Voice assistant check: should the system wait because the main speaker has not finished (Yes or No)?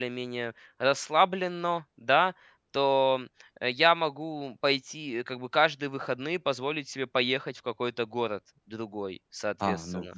No